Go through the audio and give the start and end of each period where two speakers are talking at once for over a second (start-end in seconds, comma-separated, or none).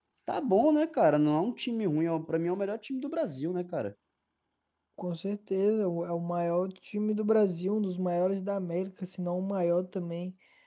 none